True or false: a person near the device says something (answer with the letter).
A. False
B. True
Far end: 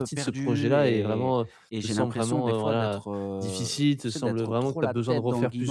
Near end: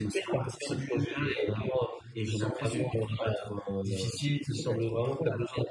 B